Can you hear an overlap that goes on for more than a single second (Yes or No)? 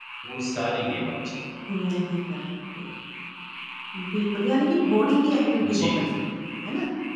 No